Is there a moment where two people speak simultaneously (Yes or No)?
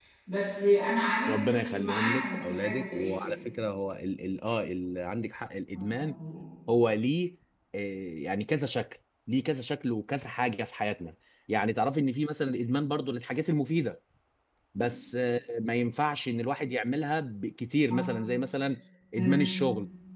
Yes